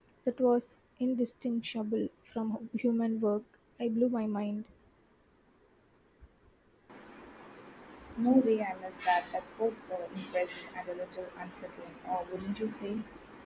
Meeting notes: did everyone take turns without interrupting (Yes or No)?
Yes